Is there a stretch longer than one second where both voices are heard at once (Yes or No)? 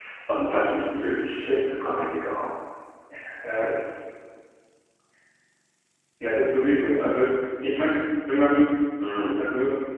No